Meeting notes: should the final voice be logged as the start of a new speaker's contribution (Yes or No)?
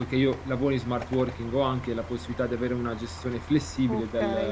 Yes